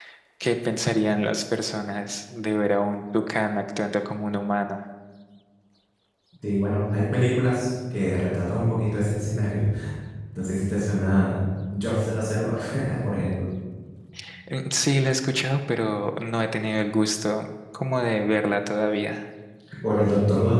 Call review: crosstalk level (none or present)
none